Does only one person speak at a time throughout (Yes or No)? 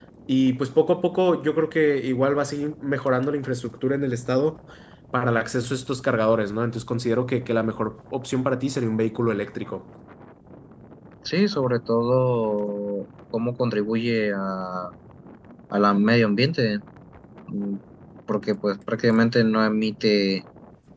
Yes